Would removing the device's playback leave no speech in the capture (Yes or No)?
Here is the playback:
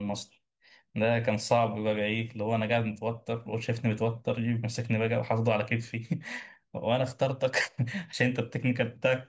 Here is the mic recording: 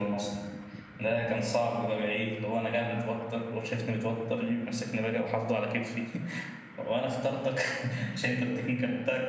Yes